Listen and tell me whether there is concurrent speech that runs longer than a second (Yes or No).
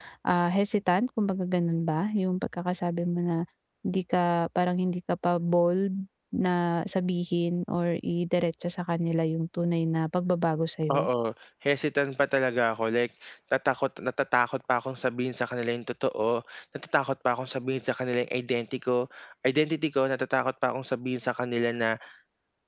No